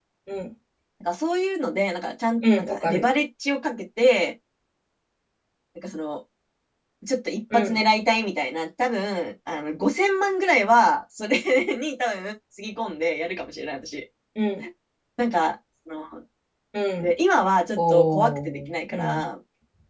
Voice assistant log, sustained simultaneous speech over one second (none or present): present